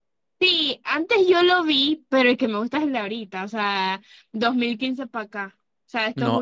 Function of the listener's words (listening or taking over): taking over